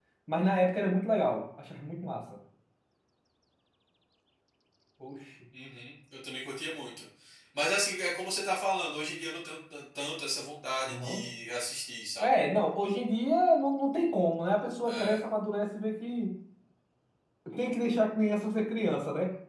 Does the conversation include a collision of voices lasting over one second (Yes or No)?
No